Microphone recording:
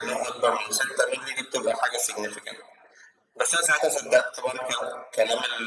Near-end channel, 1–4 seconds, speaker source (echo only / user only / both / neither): echo only